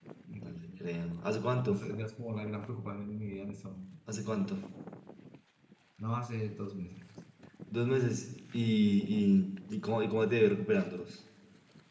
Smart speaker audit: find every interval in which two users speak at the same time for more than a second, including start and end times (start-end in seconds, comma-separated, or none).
none